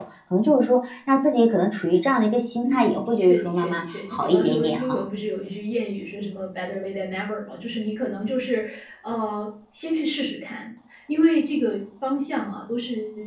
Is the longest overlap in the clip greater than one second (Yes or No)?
Yes